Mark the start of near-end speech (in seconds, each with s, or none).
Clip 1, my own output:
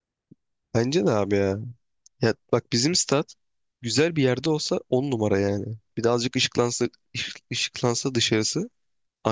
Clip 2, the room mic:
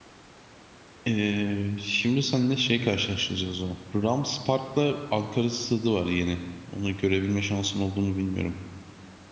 1.1 s